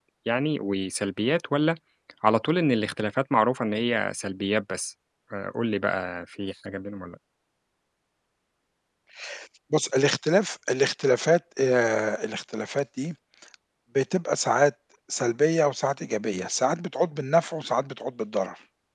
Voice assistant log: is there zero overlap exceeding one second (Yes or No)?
Yes